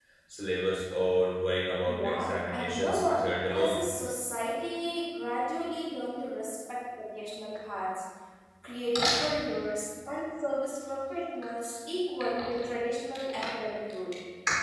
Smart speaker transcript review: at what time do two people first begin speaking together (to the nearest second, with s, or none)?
2 s